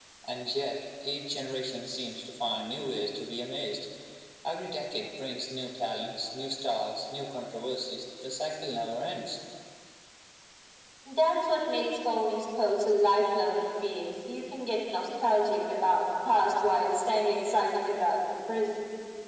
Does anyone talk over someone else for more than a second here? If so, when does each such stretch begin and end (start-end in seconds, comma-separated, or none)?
none